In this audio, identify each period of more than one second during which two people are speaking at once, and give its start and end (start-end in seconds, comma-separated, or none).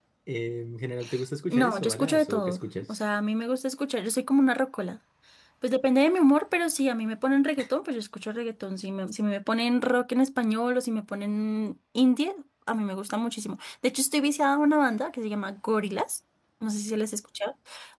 1.5-3.0